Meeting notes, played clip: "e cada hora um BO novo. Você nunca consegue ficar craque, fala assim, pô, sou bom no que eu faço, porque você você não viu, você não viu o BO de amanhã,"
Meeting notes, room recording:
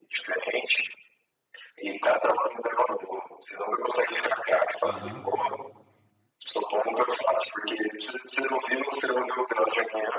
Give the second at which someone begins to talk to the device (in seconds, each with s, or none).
4.8 s